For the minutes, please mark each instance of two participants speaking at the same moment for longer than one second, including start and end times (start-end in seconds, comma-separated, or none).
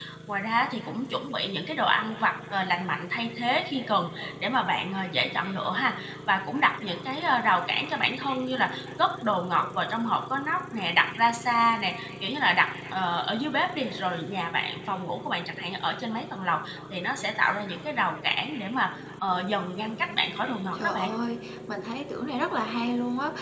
none